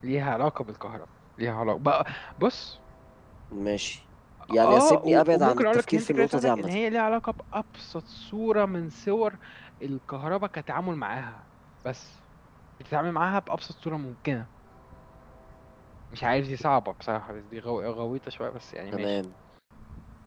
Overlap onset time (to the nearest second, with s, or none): 5 s